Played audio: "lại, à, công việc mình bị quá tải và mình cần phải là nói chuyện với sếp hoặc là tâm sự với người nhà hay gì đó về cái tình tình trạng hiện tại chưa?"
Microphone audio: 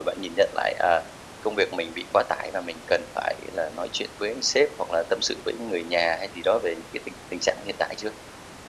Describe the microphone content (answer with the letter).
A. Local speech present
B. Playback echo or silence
B